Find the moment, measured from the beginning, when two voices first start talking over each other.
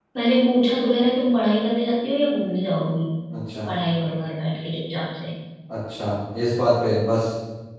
none

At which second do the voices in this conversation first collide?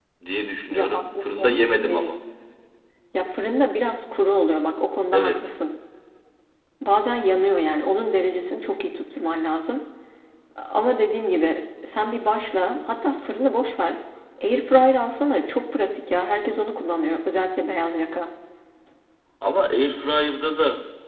0.7 s

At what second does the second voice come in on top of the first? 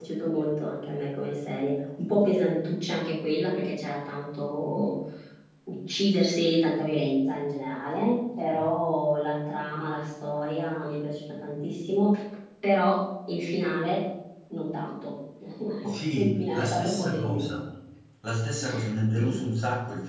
15.8 s

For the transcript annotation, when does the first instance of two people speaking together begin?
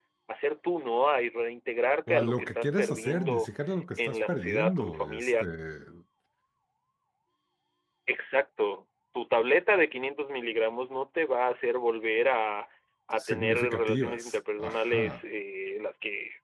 2.1 s

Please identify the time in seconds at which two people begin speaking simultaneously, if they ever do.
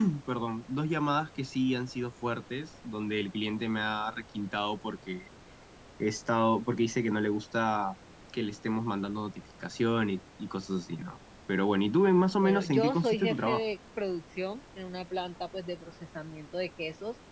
12.4 s

